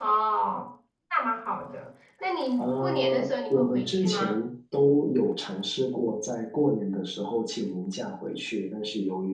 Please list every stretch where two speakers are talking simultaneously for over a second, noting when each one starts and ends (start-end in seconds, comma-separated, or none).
2.6-4.3